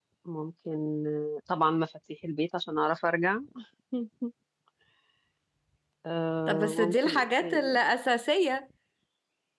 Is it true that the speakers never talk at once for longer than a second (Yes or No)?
No